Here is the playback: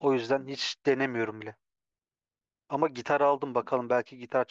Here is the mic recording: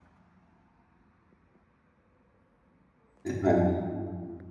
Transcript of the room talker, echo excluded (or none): Yani